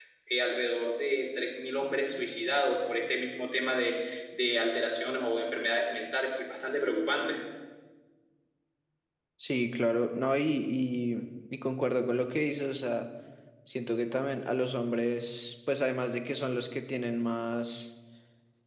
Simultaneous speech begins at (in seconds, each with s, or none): none